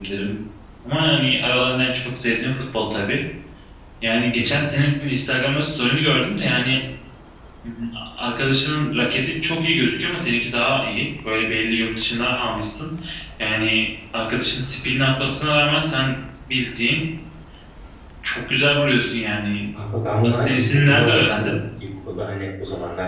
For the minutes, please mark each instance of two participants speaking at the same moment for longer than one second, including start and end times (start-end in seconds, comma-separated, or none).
20.2-21.5